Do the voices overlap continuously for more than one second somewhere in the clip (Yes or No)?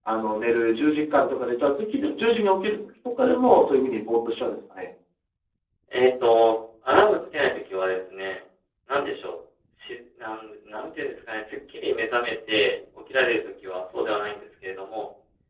No